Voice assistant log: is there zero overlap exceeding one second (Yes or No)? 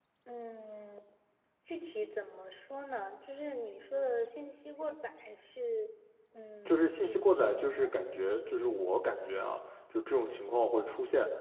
No